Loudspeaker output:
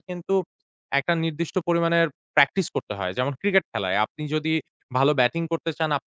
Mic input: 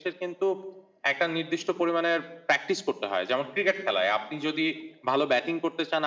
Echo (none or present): present